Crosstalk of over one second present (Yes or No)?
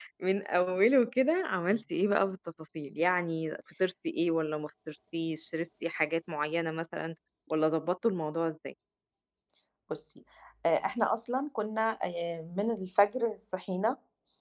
No